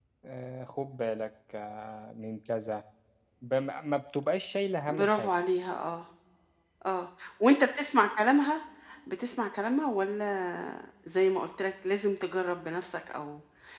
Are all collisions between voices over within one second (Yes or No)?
Yes